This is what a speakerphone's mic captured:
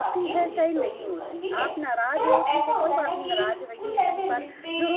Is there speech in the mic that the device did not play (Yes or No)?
Yes